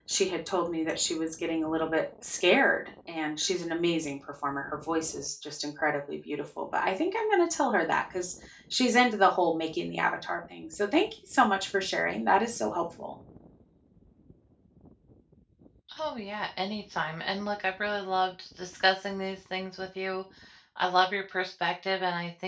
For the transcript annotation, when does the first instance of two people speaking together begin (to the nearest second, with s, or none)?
none